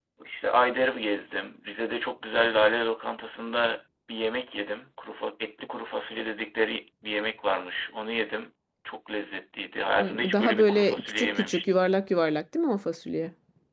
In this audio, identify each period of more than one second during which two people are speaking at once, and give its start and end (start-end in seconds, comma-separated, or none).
10.0-11.8